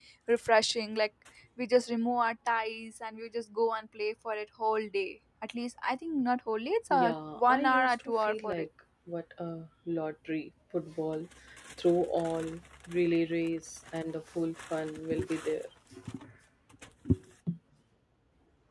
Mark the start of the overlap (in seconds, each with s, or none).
6.9 s